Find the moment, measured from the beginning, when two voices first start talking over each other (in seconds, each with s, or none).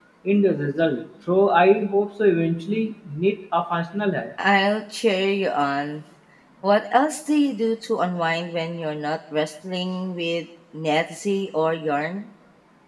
none